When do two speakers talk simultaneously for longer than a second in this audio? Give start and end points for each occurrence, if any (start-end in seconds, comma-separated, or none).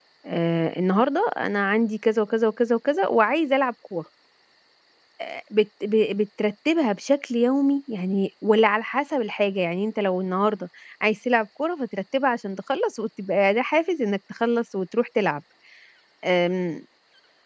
none